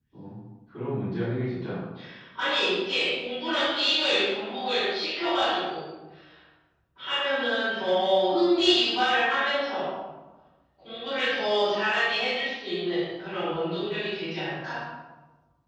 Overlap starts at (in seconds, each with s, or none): none